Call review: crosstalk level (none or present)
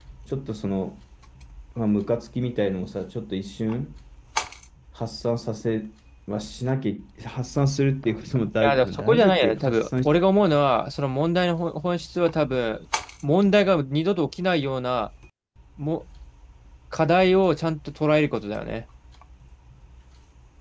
present